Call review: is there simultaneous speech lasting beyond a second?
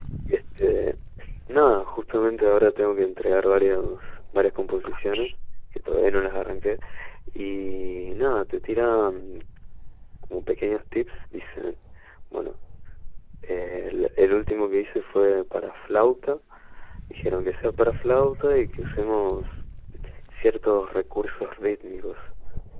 No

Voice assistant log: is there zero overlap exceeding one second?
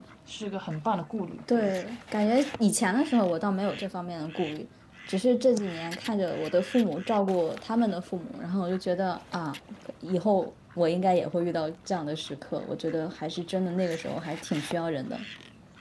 Yes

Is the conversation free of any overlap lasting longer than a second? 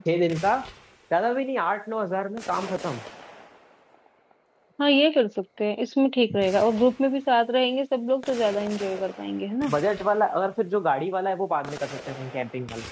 Yes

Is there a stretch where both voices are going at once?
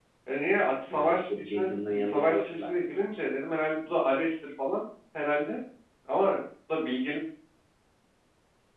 Yes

